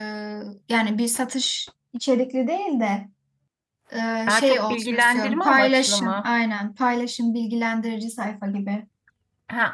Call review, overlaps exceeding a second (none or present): present